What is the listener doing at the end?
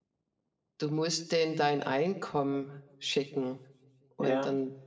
listening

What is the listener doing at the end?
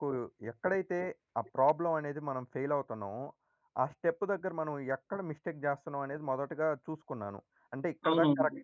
listening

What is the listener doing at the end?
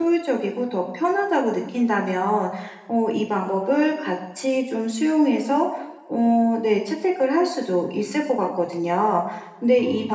listening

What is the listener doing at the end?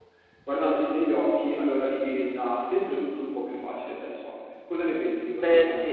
taking over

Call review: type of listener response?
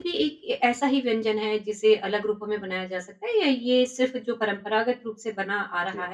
listening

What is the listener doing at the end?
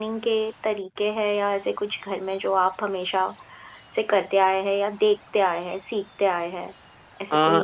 taking over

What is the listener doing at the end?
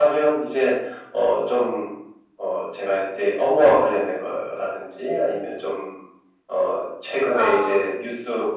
listening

